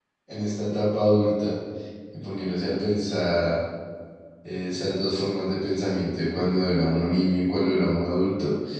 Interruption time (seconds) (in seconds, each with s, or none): none